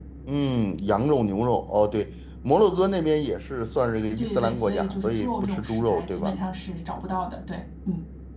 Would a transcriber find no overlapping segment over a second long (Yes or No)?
No